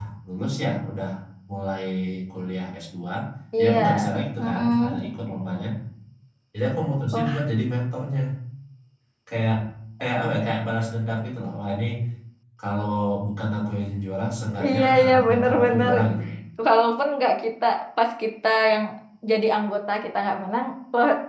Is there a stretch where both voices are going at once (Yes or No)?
Yes